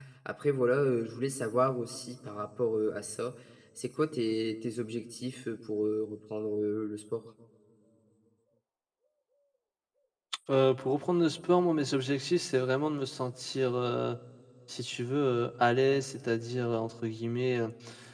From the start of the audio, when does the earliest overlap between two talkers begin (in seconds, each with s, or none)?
none